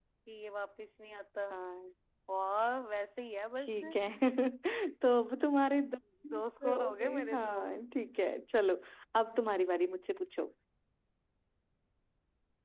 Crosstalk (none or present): present